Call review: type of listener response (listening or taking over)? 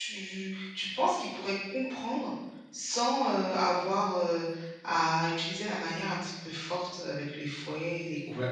taking over